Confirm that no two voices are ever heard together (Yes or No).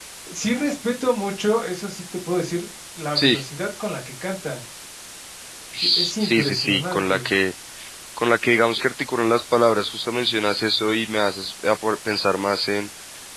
No